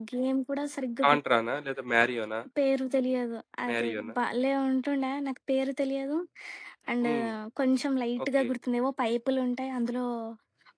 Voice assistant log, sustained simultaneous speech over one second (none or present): none